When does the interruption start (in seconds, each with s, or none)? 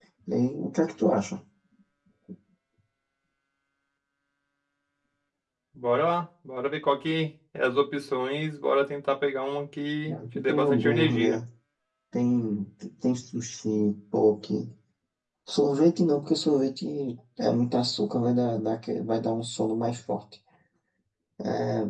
10.1 s